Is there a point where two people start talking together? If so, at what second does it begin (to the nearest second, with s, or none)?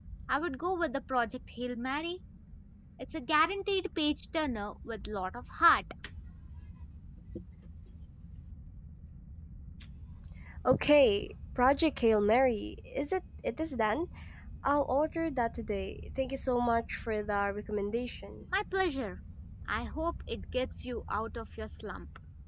none